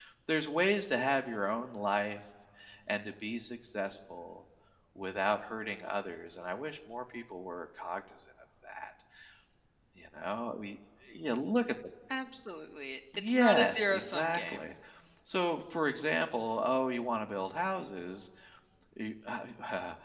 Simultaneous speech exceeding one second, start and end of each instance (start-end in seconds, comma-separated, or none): 13.2-14.7